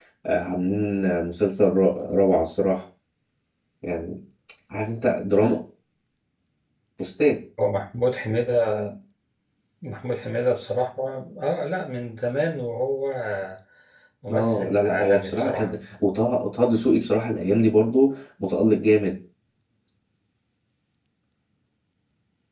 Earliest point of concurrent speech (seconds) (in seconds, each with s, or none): 14.3 s